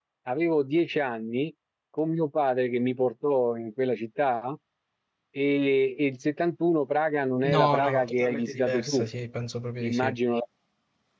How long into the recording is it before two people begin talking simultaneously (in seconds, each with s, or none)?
7.4 s